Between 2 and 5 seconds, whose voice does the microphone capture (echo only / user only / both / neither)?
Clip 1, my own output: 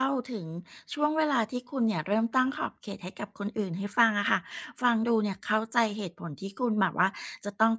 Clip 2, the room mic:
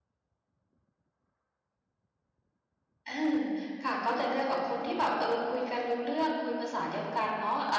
user only